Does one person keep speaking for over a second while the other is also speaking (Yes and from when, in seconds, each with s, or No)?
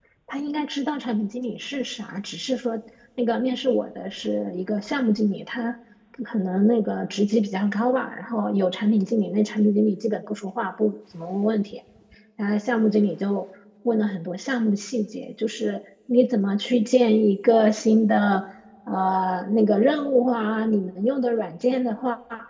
No